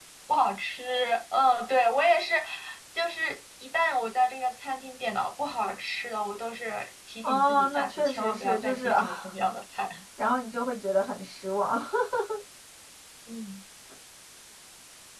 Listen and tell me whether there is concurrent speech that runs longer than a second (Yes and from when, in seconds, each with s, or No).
Yes, from 7.2 s